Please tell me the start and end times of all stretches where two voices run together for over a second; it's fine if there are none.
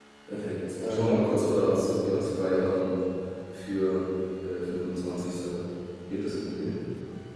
0.9-2.3

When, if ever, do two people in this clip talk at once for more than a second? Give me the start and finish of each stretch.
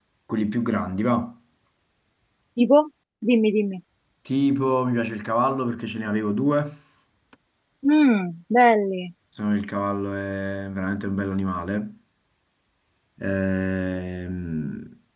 none

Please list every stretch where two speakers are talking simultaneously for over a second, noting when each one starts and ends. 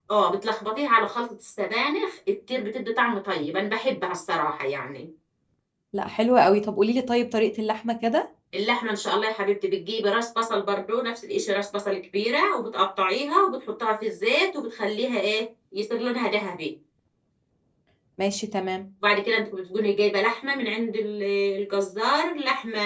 none

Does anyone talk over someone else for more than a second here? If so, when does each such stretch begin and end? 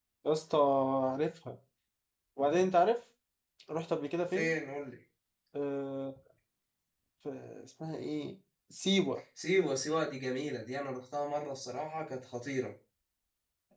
none

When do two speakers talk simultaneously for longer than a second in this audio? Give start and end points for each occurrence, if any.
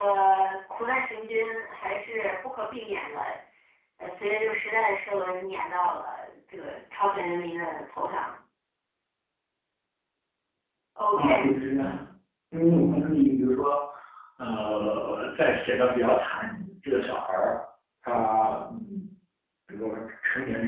none

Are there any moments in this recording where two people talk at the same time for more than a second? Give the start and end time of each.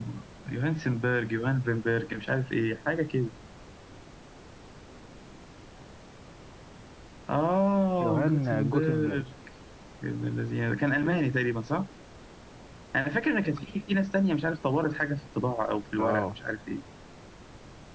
8.0-9.2

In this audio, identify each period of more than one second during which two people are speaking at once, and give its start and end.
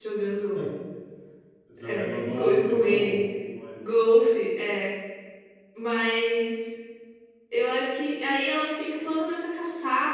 1.8-3.2

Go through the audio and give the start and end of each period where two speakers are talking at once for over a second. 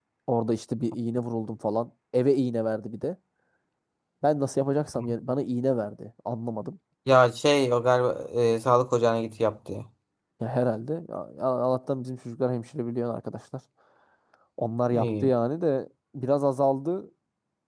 none

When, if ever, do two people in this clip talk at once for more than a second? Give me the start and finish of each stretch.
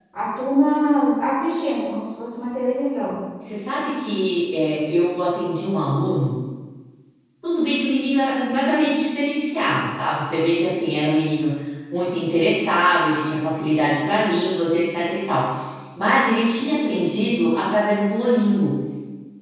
none

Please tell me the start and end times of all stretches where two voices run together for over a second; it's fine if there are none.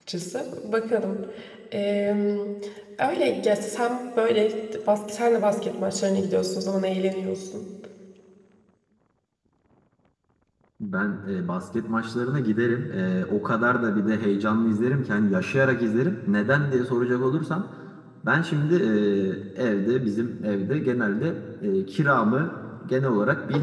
none

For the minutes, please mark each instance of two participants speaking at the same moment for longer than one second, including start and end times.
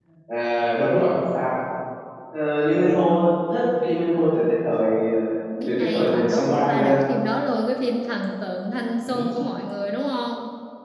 5.7-7.0

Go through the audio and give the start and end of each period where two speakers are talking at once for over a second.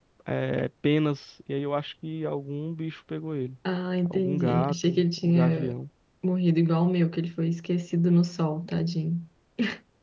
4.1-5.7

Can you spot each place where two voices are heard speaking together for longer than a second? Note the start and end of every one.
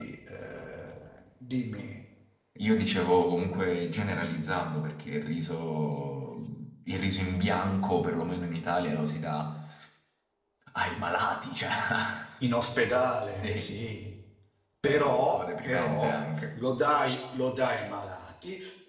14.8-16.2

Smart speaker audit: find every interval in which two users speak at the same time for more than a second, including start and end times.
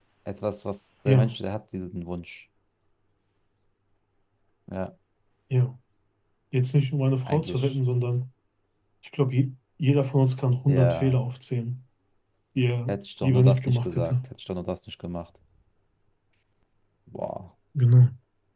12.9-14.1

